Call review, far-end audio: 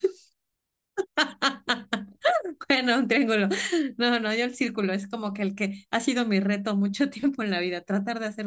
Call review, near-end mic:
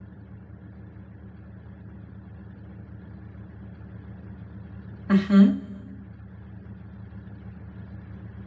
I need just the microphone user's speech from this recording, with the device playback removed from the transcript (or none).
Ajá.